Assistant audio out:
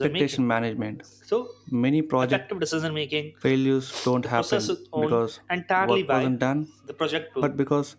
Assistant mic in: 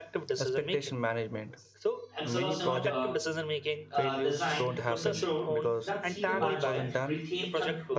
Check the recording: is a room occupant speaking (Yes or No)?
Yes